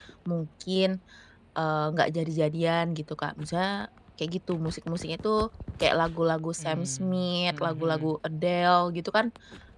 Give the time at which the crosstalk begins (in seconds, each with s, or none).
6.6 s